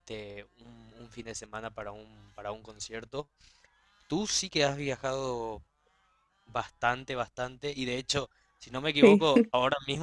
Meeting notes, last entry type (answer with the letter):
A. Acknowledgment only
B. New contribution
A